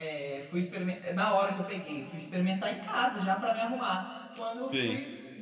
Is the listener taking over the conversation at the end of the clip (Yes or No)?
Yes